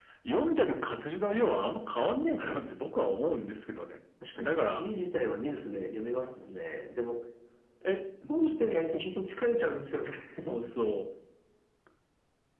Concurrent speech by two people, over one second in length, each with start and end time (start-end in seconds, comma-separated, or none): none